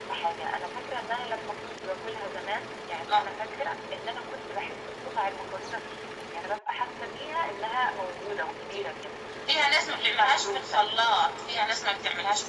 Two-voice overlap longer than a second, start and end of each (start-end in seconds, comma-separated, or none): 9.6-10.8